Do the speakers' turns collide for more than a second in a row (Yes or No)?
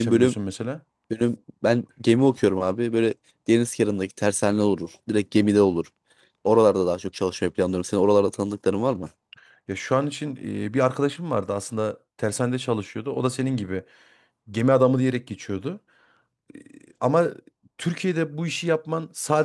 No